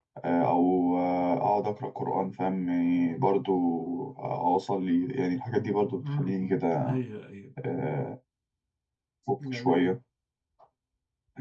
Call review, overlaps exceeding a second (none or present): none